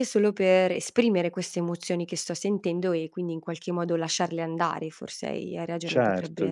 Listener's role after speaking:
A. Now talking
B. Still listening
A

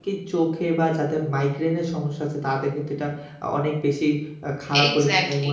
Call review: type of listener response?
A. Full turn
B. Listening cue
B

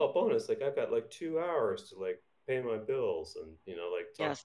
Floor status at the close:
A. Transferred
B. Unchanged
A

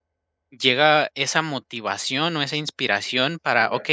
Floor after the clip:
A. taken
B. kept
B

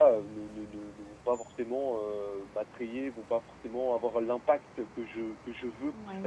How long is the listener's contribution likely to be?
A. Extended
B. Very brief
A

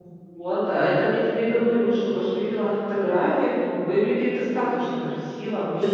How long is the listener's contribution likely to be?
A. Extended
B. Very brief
A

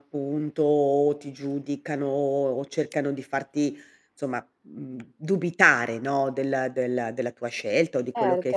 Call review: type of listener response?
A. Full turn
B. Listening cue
A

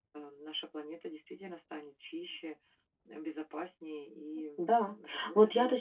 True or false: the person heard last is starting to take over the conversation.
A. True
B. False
A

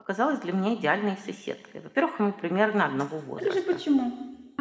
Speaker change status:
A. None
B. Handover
B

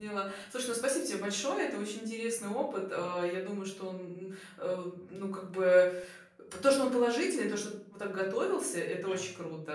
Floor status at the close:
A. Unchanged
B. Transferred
A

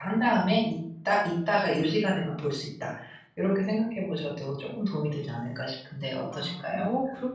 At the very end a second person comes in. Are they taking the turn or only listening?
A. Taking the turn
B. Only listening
A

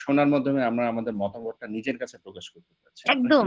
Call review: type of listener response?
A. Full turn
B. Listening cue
A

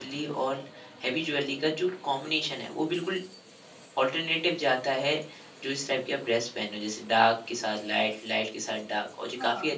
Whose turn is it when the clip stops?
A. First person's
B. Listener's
A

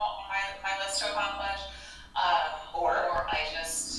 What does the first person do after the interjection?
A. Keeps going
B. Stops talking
A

